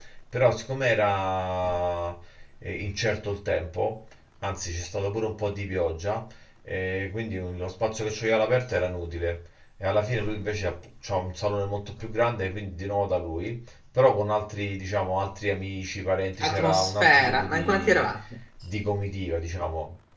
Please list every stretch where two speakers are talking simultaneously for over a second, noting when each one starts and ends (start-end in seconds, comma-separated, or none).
16.4-18.1